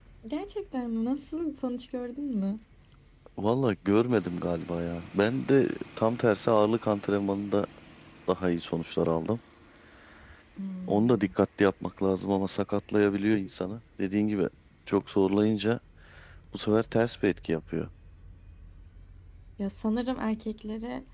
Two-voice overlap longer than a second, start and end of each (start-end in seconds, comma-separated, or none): none